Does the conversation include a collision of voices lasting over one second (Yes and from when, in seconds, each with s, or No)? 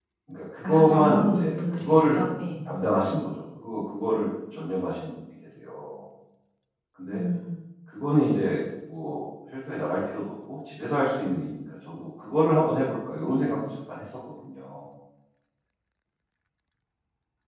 Yes, from 0.6 s